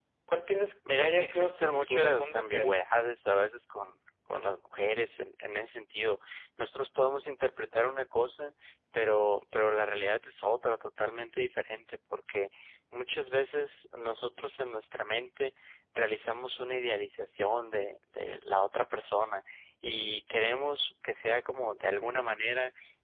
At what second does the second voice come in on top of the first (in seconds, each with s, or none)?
1.0 s